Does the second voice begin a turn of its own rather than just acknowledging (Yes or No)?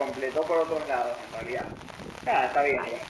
No